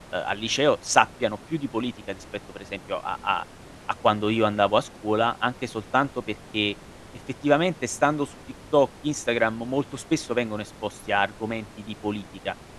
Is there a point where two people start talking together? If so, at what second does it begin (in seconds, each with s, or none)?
none